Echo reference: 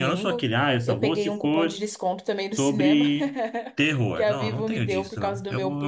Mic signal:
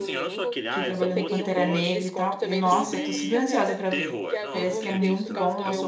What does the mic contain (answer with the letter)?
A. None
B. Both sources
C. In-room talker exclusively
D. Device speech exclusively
B